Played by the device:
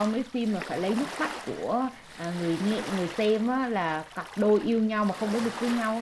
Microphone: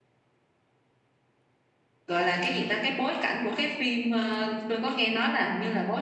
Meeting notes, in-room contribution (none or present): present